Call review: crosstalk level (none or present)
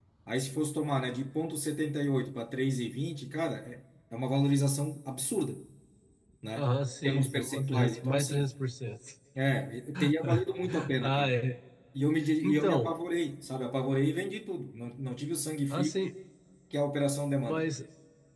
present